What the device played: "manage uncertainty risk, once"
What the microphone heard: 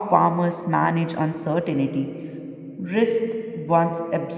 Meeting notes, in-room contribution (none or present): none